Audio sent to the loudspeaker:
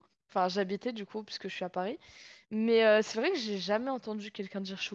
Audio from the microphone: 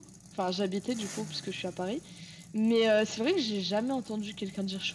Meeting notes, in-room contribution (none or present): none